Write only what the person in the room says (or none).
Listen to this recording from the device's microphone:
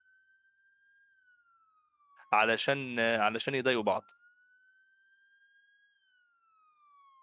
علشان علشان يضايقوا بعض